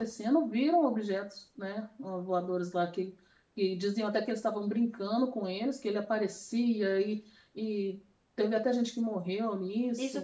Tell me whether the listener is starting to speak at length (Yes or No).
Yes